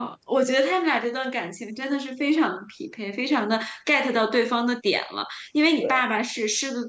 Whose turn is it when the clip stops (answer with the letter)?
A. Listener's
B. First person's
B